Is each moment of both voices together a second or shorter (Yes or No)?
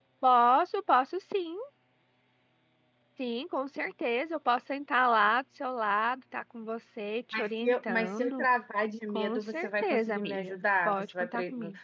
No